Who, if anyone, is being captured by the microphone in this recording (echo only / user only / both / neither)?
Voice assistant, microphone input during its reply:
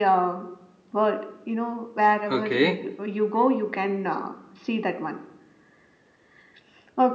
both